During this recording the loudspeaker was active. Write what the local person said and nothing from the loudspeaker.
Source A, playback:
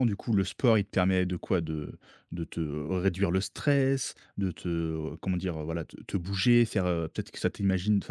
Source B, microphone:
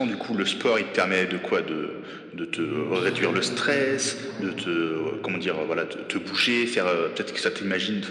et moi, je travaille à la maison aussi du coup. Ouais et heu,

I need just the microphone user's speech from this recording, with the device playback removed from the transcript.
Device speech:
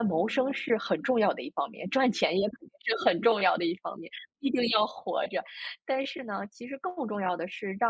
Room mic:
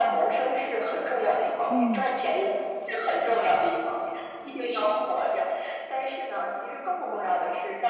嗯，

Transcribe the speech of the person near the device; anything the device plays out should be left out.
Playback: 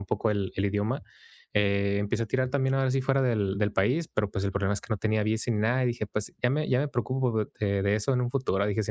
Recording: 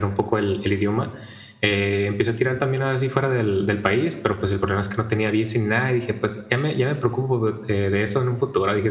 none

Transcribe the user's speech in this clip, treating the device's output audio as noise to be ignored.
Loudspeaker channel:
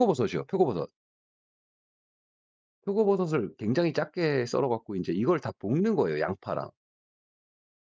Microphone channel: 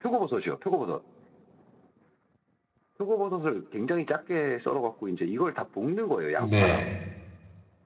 네.

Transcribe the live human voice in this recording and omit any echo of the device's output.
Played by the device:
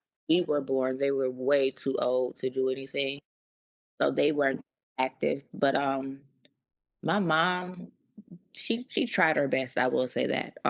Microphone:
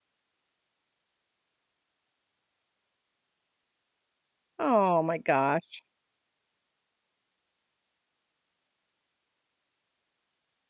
Oh my gosh.

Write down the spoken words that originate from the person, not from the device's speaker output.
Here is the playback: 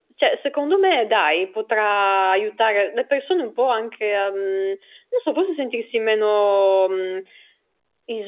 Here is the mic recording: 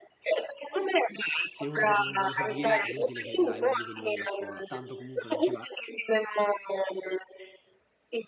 Se uno proprio non vuole seguire è inutile che là hai l'obbligo di venire a scuola, tanto comunque non ci va

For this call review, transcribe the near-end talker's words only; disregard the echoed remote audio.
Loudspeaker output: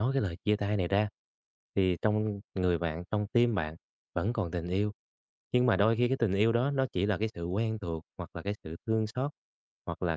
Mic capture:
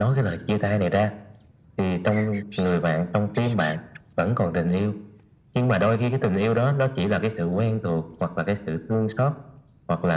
none

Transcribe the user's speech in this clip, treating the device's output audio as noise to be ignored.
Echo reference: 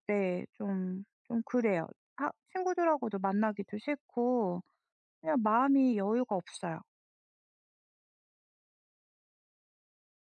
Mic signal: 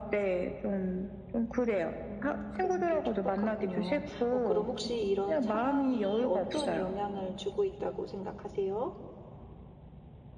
음 그런 게 촉박하군요. 어 그럼 혹시 이런 상황이 어떤 영향을 주고 있다고 생각하세요?

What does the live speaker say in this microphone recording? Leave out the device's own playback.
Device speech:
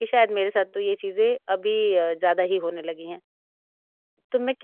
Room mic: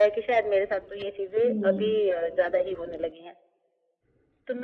हुँ,

